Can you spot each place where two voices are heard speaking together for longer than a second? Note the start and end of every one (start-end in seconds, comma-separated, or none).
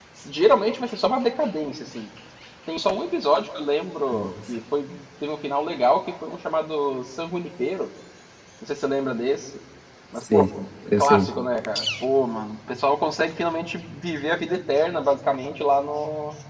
none